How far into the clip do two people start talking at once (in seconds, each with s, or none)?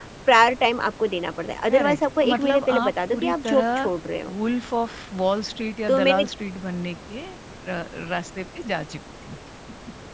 1.7 s